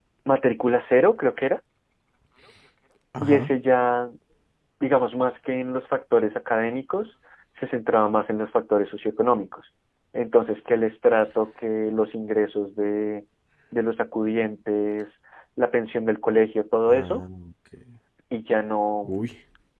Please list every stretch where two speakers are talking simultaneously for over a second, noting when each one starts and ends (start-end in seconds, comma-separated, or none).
none